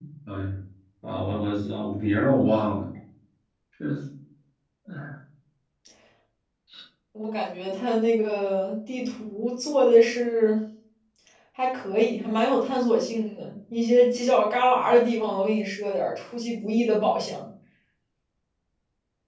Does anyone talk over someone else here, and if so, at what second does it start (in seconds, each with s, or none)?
none